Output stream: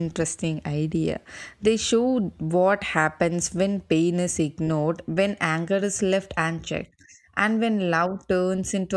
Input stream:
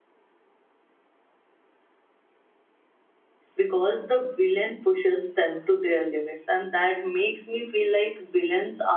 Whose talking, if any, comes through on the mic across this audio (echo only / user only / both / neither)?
user only